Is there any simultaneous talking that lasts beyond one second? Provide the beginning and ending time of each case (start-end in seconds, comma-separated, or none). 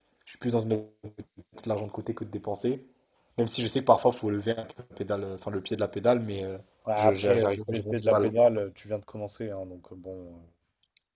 7.0-8.3